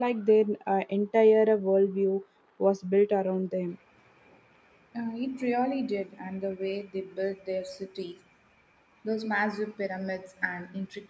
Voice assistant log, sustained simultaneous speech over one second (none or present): none